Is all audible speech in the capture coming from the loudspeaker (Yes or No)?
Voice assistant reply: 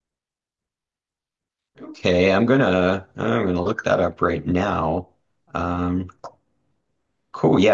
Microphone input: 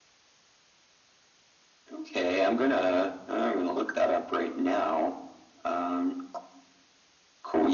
Yes